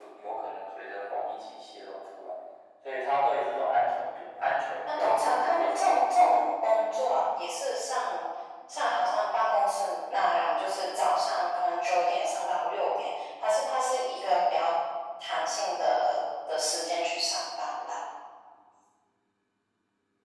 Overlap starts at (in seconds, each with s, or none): 4.9 s